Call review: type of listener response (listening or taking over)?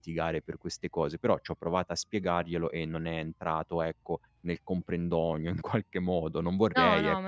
taking over